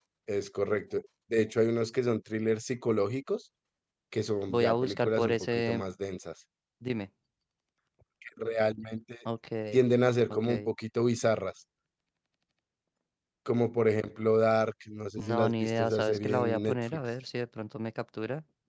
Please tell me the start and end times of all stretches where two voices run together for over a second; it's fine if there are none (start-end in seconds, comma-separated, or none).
4.5-5.8, 15.2-17.0